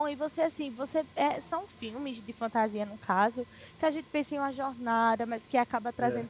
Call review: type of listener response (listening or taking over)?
listening